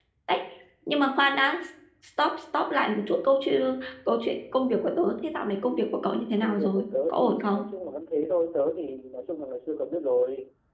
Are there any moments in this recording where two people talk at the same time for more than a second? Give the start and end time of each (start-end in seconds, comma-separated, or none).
6.4-7.6